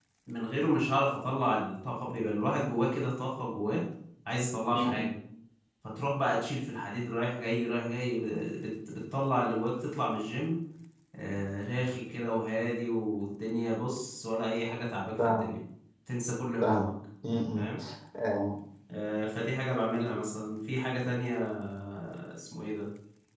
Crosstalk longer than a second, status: none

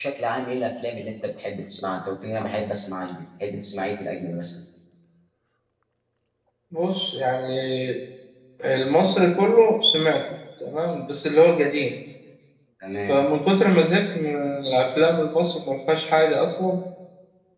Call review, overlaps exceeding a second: none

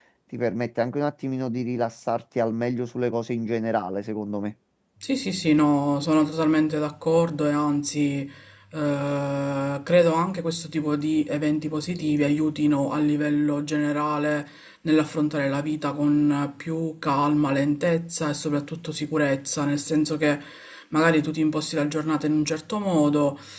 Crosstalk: none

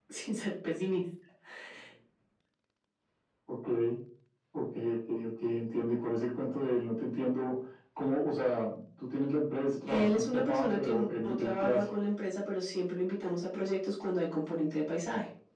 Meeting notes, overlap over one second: present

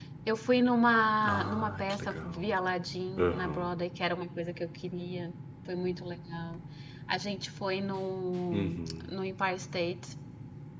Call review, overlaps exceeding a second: present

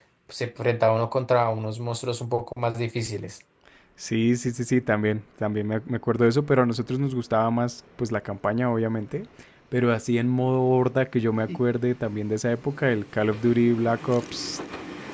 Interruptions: none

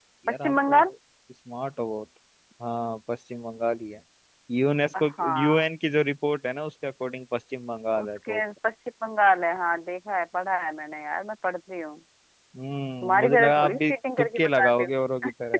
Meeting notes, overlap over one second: present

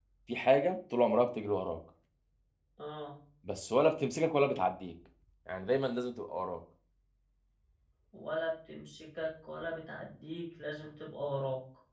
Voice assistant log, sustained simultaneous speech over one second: none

